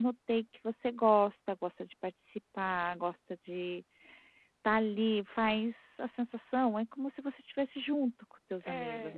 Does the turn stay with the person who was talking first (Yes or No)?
No